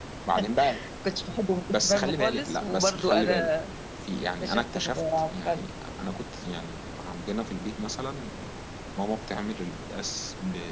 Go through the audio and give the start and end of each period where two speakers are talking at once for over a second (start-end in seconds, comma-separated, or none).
1.7-3.4, 4.4-5.7